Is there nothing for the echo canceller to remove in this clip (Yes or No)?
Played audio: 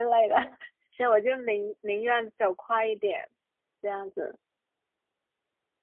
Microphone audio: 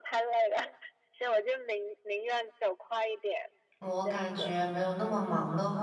No